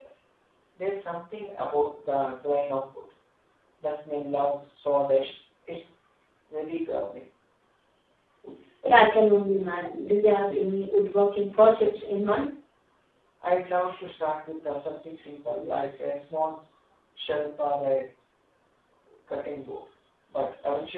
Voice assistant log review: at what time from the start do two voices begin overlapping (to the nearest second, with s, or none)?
none